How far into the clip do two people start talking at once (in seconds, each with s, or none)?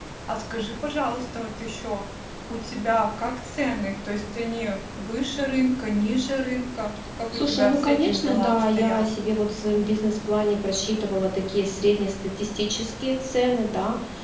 7.3 s